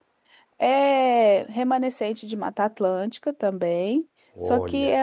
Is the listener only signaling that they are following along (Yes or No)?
Yes